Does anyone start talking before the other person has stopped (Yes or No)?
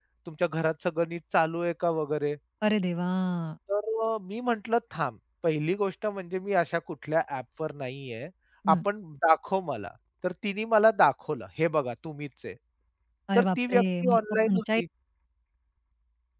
Yes